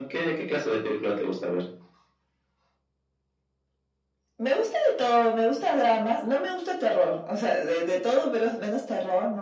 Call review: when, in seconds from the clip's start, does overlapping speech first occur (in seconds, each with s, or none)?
none